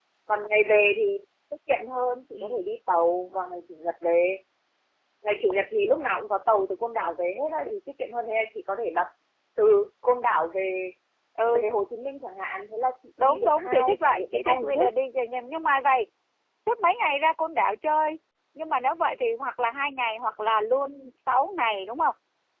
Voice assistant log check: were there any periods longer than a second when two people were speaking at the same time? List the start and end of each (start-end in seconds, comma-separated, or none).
13.2-14.9